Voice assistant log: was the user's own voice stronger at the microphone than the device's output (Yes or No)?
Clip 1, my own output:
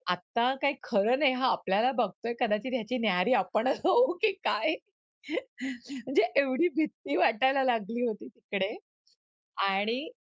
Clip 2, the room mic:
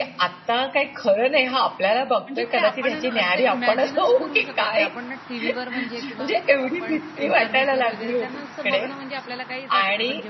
No